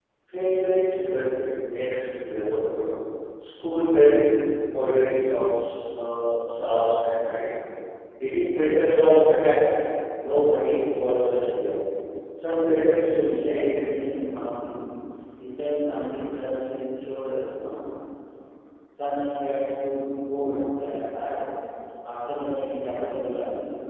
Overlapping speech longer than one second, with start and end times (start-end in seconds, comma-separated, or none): 12.6-14.1